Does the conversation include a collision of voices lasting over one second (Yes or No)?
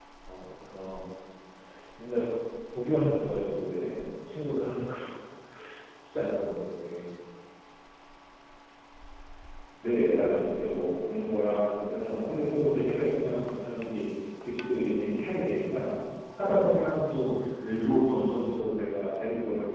No